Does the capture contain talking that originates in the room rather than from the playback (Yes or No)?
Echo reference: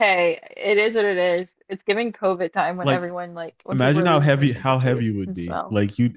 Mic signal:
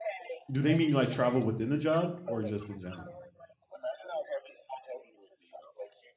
Yes